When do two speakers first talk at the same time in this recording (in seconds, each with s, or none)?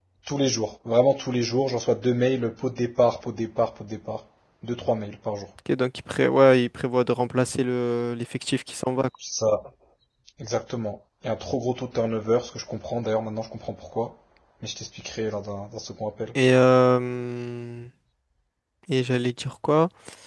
none